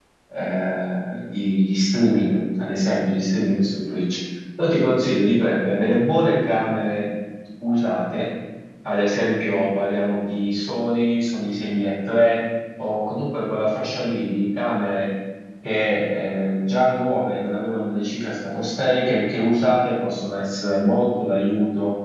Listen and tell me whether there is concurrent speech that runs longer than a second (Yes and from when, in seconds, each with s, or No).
No